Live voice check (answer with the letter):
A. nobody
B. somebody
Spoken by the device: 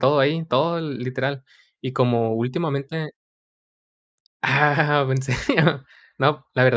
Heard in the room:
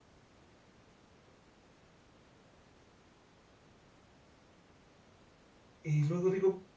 B